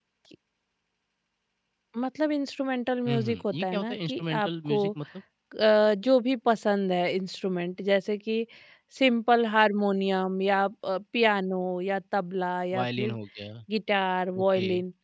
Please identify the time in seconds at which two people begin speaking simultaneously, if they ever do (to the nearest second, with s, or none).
3 s